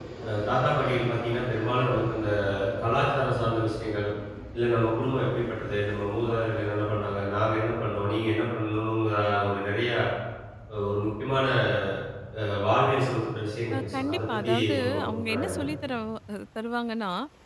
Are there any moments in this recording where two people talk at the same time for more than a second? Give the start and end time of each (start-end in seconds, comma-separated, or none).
13.7-15.7